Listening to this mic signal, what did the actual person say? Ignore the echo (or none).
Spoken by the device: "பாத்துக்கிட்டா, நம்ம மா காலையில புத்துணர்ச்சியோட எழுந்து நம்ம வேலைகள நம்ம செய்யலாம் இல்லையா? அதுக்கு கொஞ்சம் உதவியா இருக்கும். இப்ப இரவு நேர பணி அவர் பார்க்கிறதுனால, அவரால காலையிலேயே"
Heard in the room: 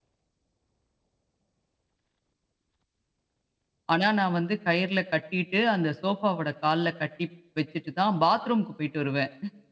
ஆனா நான் வந்து கயிறுல கட்டிட்டு, அந்த சோஃபாவோட கால்ல கட்டி வச்சுட்டு தான் பாத்ரூம்க்கு போயிட்டு வருவேன்.